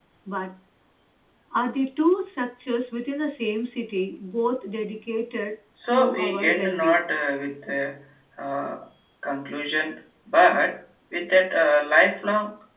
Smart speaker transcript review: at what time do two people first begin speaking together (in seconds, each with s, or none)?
5.8 s